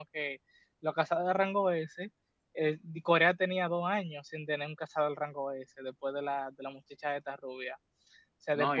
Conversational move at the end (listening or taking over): taking over